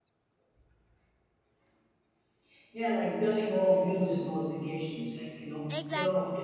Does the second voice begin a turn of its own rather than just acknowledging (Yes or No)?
No